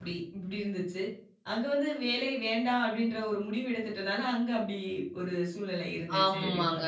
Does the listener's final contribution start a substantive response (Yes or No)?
Yes